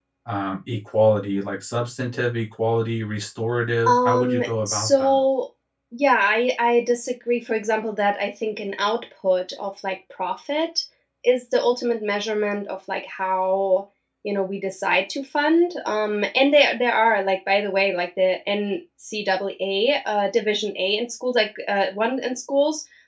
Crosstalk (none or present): present